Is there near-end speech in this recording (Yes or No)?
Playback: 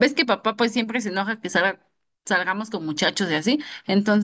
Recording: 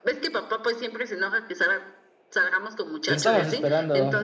Yes